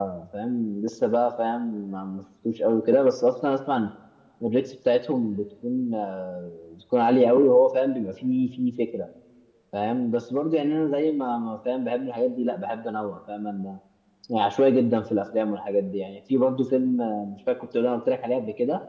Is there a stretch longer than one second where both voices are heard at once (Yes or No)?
No